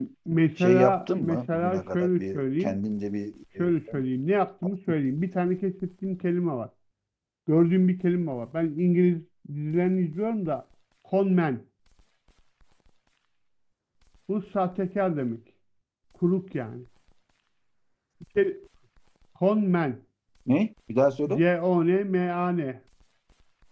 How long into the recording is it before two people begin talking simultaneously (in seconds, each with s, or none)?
0.6 s